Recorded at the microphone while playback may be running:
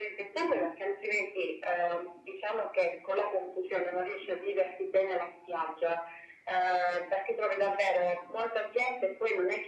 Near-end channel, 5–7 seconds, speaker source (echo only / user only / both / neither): echo only